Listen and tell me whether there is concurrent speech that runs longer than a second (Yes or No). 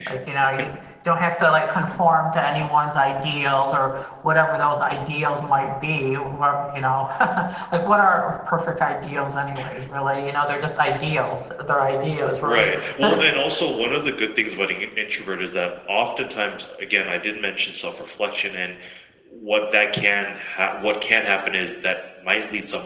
No